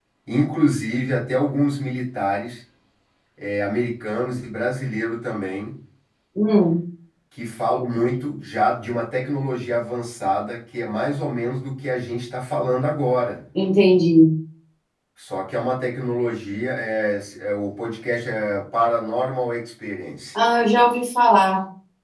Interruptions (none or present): none